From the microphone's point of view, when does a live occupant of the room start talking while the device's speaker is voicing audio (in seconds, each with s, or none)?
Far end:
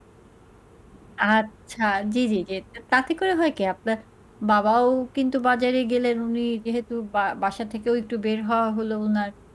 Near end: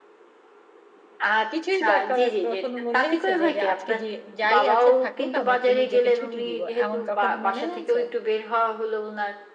1.5 s